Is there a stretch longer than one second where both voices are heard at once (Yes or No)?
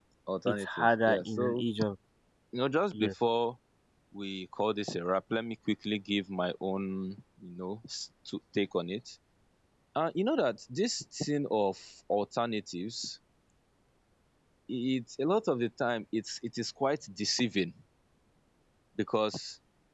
Yes